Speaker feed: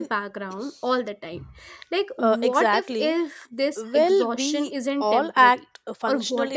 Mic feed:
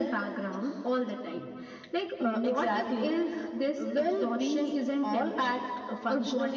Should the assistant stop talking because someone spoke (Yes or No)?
No